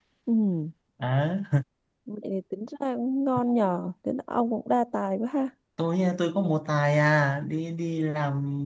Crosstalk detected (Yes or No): No